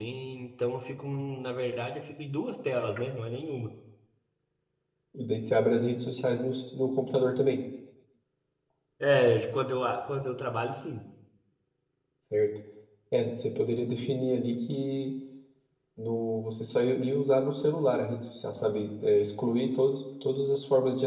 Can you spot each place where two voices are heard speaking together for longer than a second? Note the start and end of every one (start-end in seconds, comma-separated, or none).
none